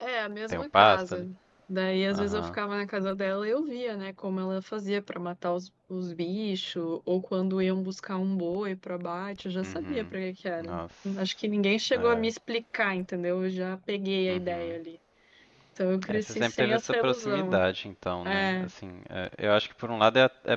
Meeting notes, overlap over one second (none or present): present